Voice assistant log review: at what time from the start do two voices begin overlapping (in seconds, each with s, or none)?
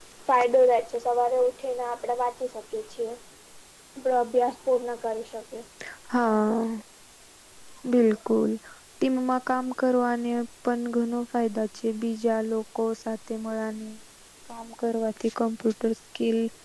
none